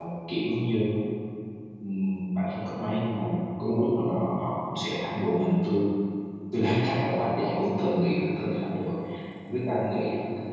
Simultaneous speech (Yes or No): No